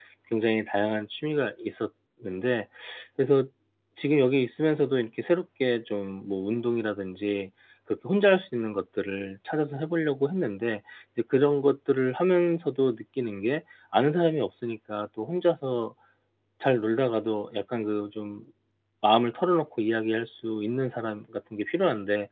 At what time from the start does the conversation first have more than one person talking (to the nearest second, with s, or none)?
none